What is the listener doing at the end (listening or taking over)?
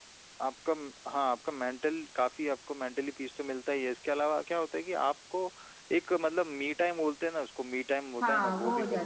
taking over